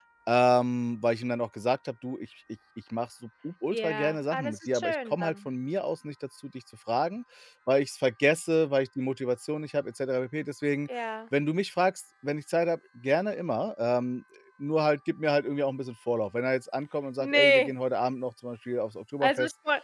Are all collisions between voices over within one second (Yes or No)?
No